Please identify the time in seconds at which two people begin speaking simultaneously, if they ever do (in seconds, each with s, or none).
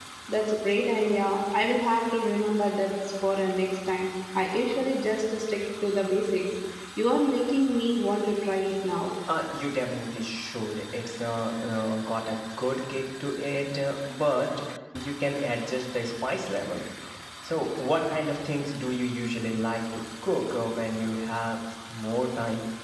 none